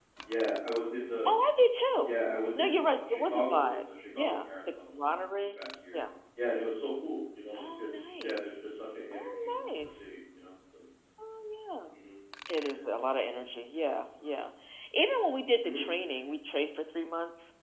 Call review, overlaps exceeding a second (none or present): present